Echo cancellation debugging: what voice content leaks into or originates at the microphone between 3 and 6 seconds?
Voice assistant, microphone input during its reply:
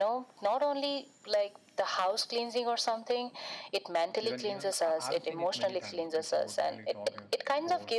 both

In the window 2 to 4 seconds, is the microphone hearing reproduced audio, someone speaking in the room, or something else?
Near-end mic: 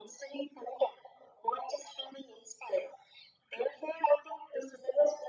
echo only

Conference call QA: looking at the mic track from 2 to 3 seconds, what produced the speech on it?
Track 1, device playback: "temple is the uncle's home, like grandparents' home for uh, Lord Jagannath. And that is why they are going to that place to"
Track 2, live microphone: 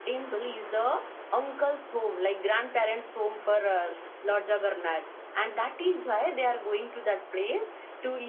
echo only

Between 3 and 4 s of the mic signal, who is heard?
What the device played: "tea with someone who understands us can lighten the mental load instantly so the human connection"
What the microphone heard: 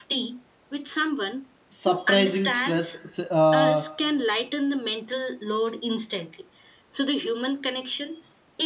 both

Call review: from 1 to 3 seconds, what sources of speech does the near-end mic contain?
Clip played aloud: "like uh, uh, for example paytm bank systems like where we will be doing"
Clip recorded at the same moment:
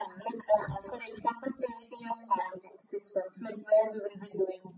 echo only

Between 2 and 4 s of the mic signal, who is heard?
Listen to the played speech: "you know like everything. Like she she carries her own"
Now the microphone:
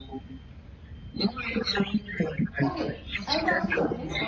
both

